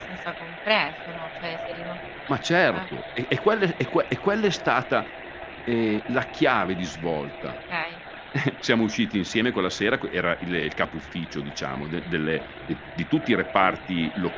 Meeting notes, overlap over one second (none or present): none